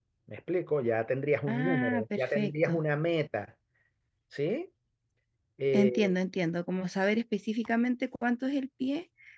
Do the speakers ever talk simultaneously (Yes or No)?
Yes